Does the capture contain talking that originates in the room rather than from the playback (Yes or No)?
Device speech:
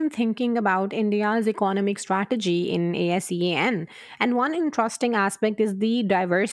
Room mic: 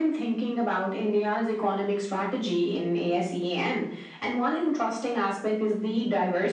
No